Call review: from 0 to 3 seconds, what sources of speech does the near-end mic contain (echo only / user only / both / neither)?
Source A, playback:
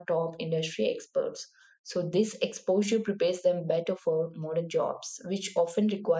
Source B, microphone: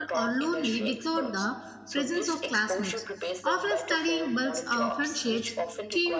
both